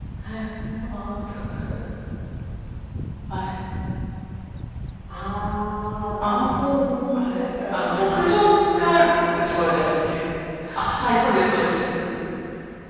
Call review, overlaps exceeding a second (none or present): present